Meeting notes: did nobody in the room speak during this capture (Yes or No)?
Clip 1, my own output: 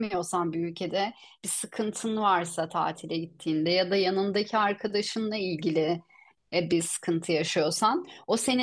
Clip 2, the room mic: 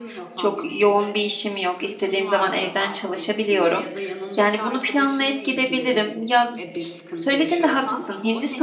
No